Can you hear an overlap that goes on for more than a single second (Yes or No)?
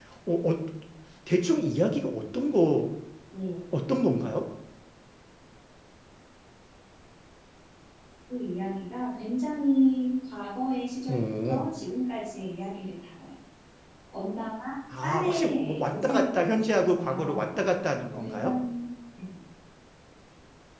Yes